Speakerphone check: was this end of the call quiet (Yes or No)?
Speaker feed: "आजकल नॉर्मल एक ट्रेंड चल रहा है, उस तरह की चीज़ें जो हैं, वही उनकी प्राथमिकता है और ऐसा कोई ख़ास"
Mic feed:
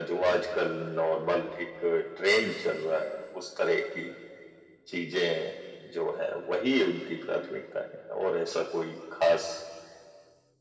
Yes